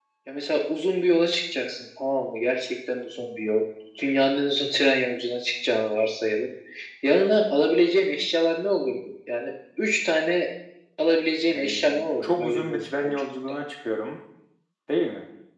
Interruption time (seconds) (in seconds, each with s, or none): 11.5 s